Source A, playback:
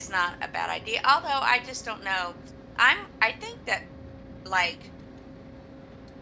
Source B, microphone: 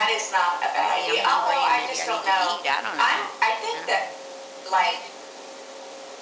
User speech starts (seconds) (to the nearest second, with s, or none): 1 s